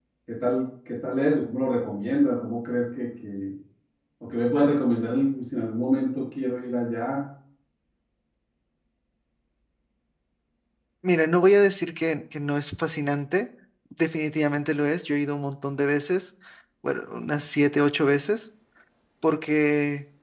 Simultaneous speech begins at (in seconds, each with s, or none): none